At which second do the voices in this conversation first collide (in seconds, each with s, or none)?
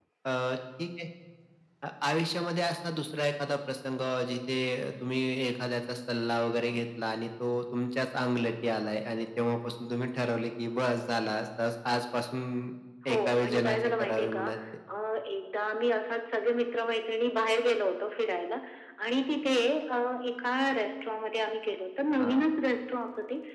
13.1 s